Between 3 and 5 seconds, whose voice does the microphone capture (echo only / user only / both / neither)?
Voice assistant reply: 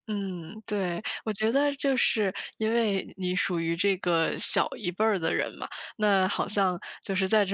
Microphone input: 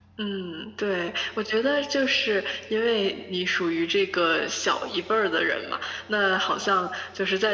echo only